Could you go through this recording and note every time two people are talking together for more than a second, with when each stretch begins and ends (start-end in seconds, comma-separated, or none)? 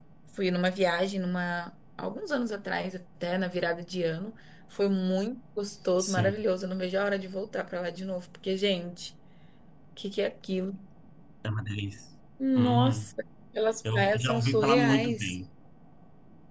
13.9-15.3